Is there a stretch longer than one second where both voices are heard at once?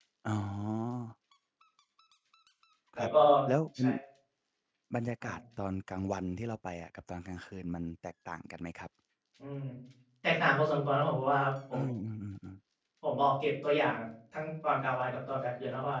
No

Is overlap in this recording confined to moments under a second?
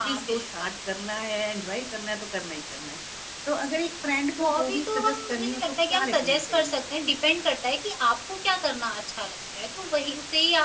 No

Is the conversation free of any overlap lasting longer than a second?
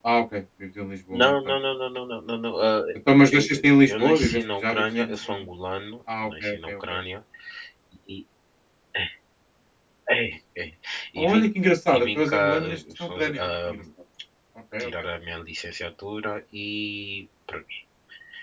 No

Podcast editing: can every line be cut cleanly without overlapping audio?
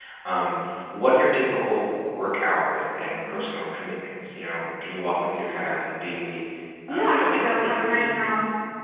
No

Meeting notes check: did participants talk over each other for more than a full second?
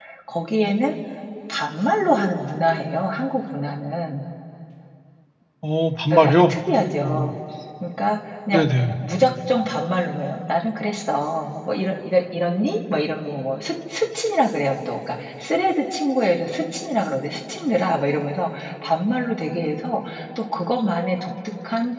No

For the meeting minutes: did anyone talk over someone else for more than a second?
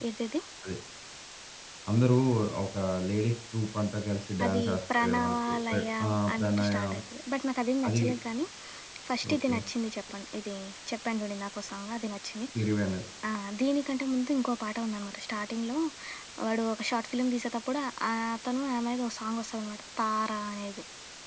Yes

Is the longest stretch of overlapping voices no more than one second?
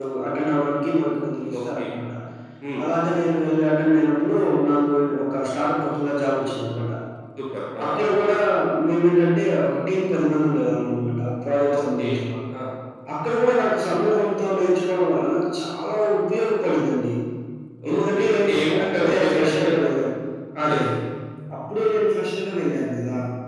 No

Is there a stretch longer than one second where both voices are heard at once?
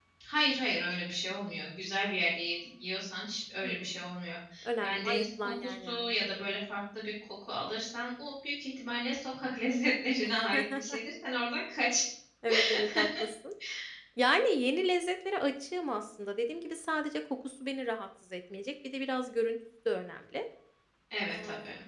Yes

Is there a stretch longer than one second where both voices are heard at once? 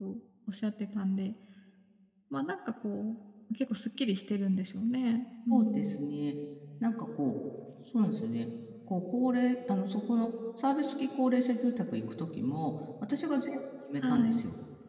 No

